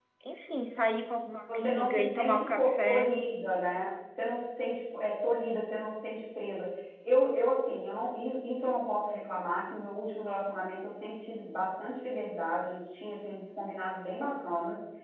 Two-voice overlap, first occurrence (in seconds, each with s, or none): 1.5 s